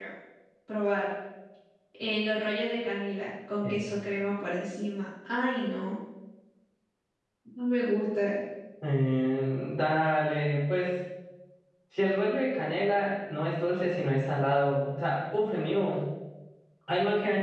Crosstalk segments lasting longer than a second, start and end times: none

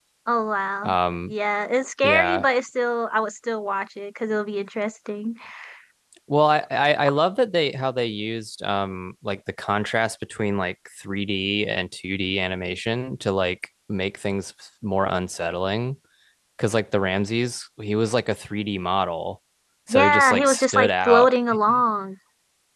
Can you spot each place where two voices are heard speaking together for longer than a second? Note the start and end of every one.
19.9-21.3

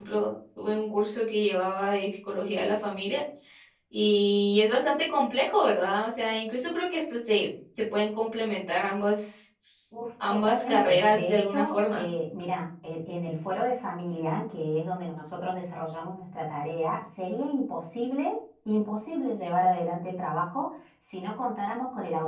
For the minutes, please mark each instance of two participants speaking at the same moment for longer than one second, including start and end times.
10.3-12.1

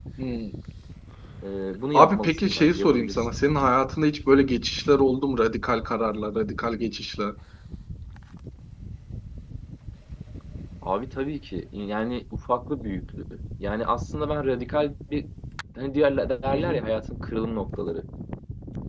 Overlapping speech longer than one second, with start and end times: 1.9-3.4

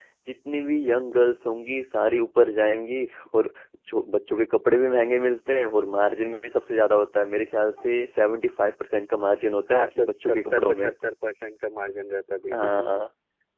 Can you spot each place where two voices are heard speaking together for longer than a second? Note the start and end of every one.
9.7-10.9

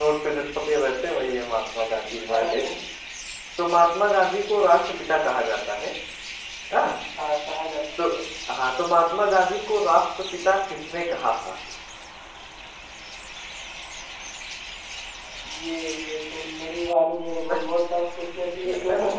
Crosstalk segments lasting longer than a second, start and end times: none

